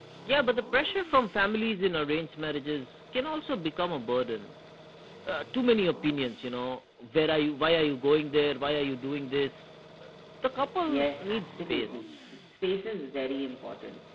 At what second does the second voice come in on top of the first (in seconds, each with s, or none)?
10.8 s